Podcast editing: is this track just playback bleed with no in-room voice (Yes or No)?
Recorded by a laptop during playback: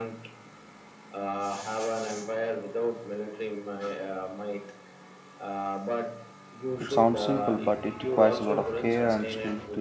No